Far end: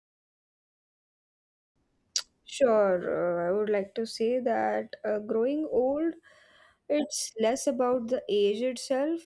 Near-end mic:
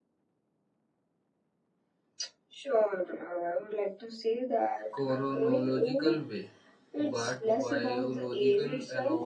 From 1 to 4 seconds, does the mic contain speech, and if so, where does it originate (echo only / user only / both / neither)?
echo only